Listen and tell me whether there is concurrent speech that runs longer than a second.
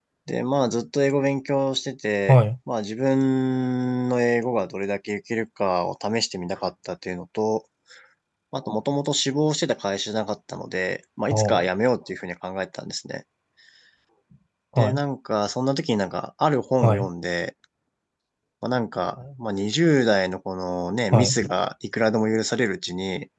No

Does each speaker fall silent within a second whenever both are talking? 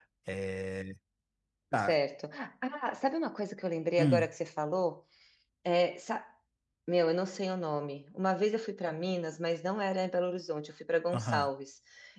Yes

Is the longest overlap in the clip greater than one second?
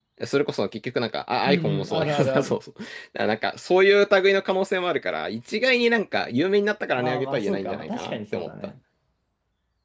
Yes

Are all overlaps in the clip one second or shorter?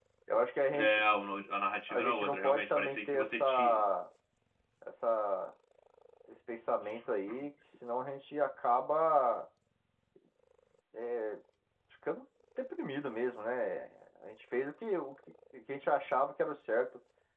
No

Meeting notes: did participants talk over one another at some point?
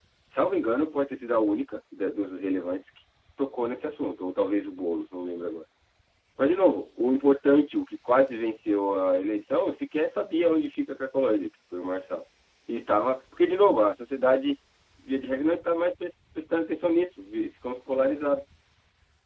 No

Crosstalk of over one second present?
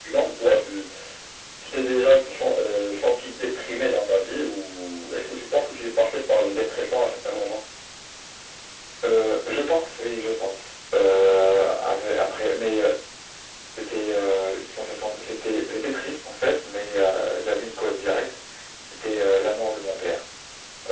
No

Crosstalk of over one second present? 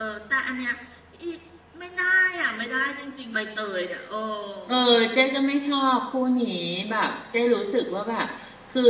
No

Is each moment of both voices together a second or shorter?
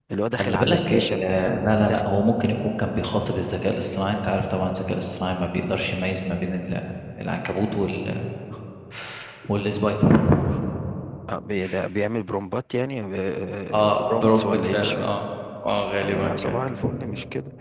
No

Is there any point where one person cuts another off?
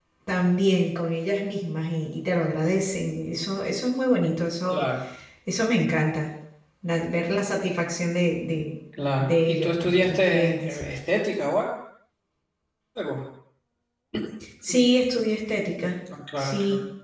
Yes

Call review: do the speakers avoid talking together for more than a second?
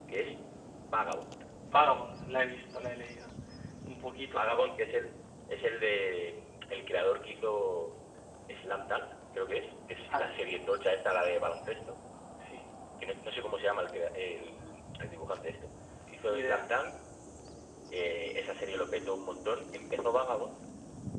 Yes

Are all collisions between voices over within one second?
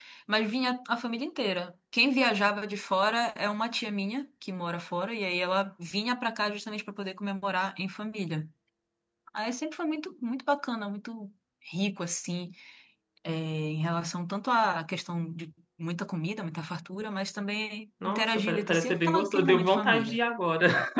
No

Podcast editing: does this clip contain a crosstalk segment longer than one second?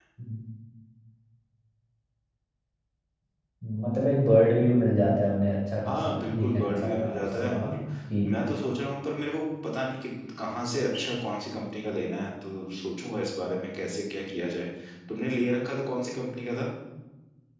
Yes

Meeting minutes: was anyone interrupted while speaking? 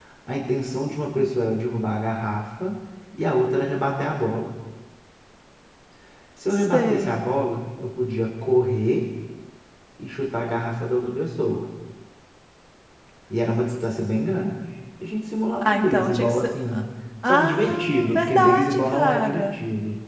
Yes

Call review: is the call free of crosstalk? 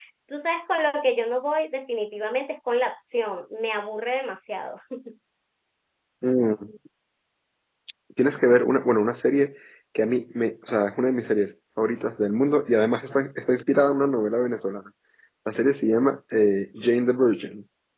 Yes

